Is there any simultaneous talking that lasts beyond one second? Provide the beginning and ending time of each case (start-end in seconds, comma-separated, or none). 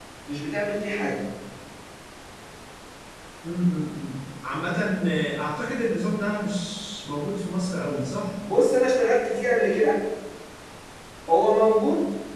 none